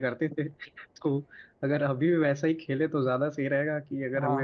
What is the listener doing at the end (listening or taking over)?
taking over